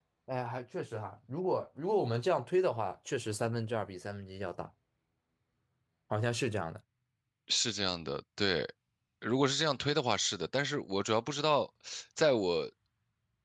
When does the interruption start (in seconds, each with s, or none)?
none